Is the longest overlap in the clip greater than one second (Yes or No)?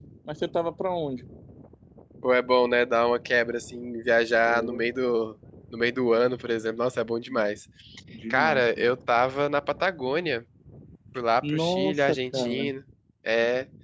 Yes